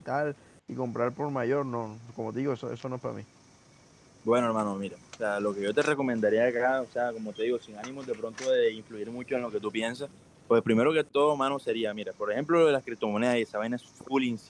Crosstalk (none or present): none